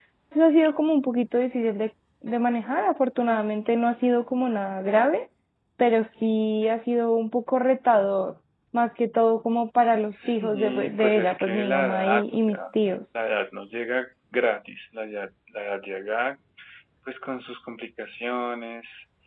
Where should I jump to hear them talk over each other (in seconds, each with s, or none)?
10.1 s